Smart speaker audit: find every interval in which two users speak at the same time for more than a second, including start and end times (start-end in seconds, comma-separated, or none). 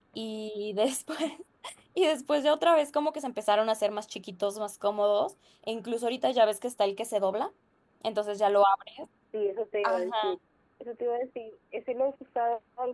none